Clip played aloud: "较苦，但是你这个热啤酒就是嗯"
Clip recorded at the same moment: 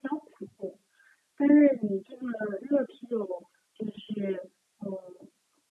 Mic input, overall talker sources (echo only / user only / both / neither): echo only